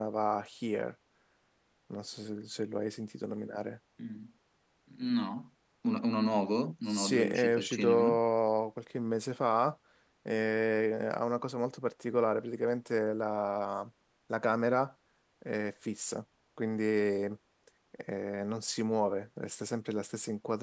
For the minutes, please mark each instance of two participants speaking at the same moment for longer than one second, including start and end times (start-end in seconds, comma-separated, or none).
6.9-8.2